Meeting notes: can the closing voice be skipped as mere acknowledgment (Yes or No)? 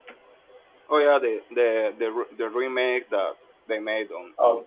No